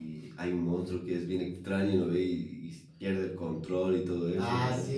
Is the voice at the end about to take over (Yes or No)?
Yes